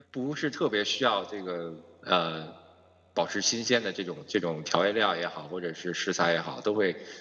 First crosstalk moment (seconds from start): none

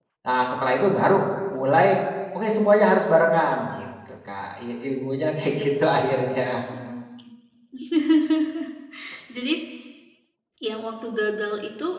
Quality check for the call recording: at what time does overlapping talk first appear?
none

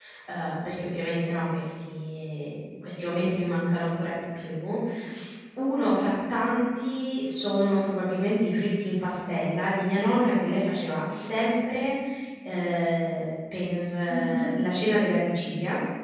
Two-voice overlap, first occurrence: 10 s

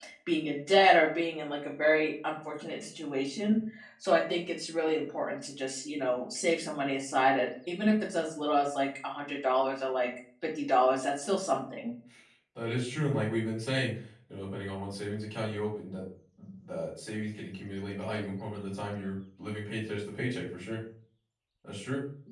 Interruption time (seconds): none

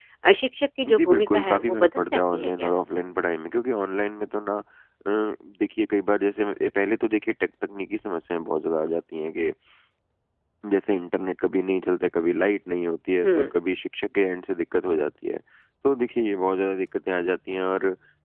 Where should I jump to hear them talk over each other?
1 s

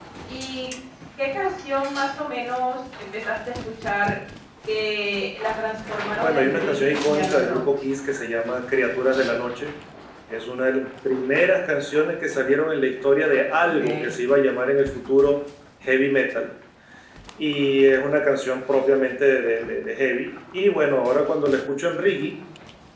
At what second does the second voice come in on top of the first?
6 s

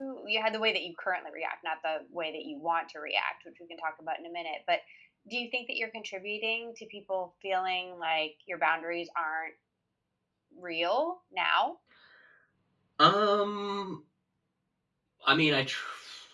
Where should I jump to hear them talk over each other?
none

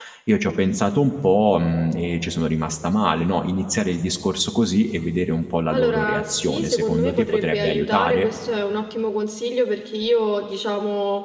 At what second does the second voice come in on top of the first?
6 s

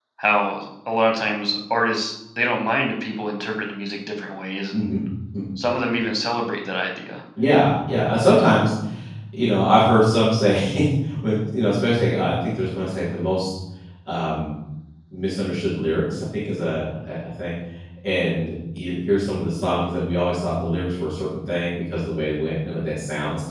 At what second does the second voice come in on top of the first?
none

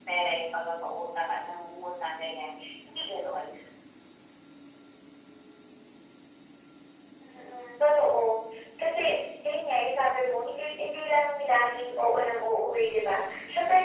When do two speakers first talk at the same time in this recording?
none

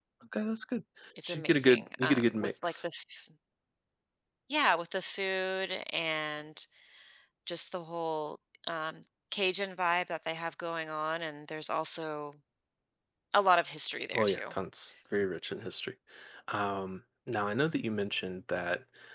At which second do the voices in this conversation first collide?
1 s

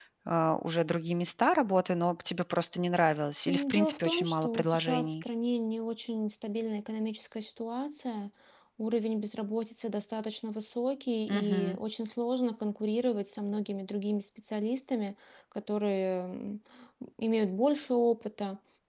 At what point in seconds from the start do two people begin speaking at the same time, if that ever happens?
3 s

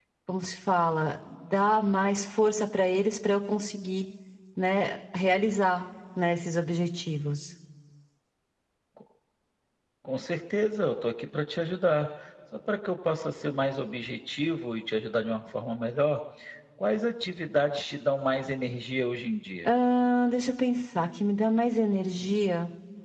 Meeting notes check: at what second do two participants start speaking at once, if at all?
none

